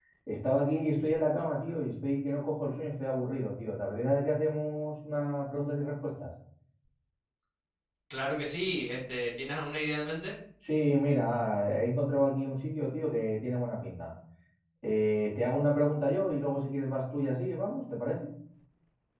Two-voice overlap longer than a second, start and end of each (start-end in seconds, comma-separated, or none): none